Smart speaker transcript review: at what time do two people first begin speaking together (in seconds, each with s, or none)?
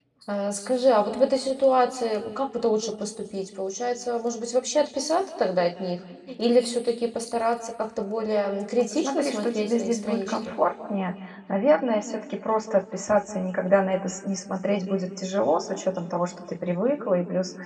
8.9 s